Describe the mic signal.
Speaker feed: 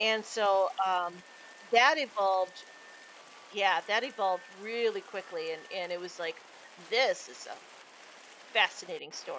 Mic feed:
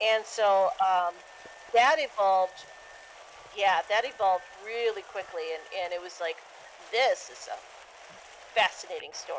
echo only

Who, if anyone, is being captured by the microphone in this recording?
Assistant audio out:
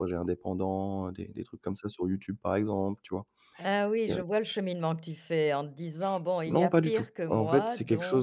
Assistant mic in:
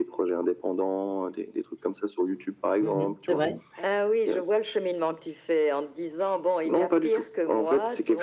both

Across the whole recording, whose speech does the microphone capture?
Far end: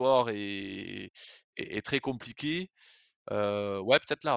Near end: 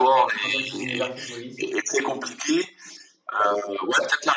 both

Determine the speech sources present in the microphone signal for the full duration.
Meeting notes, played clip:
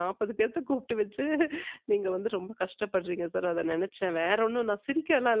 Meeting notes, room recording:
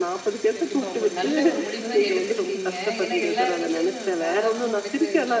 both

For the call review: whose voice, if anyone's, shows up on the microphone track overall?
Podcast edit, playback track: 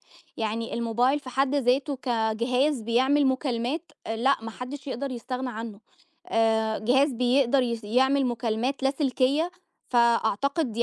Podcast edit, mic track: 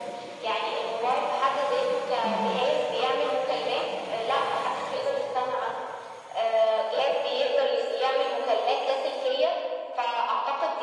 both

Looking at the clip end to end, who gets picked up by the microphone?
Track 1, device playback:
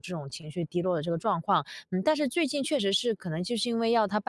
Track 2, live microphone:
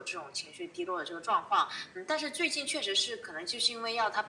echo only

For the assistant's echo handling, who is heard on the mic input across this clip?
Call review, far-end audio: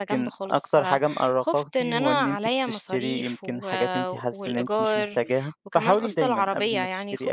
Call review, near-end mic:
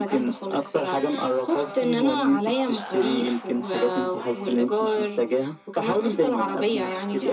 both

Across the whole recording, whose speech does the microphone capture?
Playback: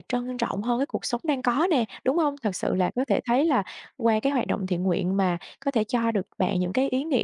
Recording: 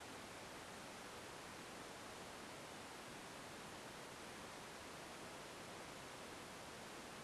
neither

